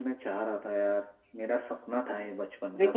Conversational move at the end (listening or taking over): taking over